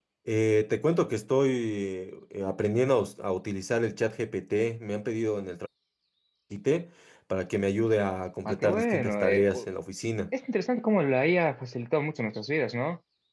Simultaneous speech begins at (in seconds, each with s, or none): 8.4 s